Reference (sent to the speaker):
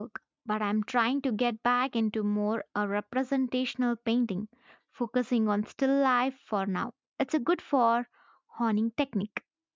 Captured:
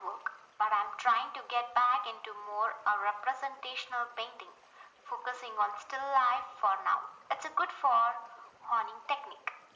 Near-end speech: none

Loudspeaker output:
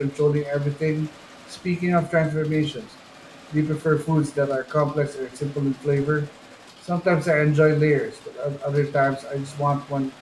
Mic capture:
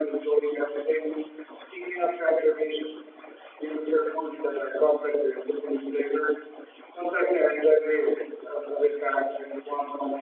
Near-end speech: none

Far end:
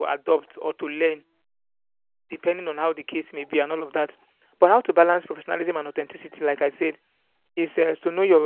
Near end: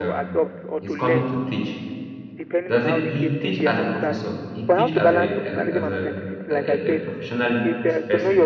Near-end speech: present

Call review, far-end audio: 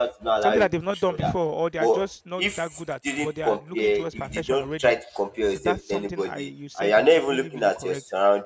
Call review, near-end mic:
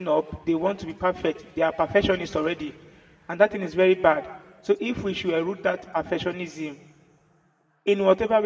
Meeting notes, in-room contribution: present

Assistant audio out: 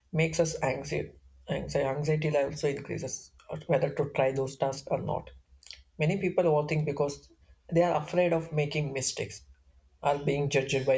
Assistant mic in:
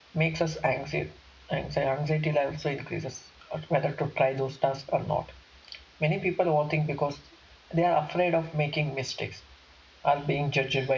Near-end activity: none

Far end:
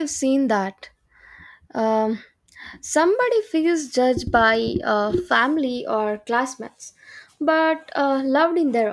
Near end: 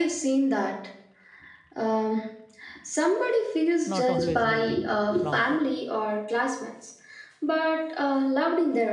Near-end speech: present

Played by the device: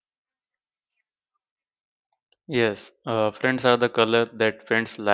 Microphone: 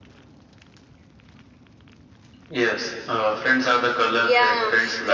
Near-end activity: present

